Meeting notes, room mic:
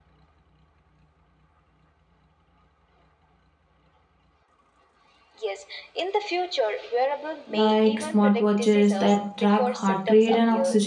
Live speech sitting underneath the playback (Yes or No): No